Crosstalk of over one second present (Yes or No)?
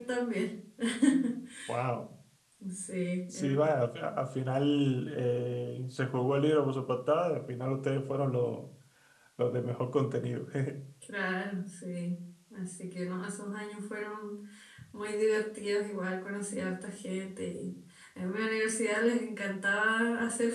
No